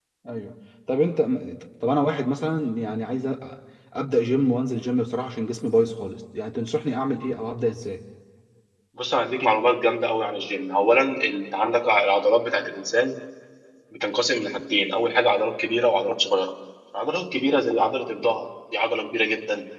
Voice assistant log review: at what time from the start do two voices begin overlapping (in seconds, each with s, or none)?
none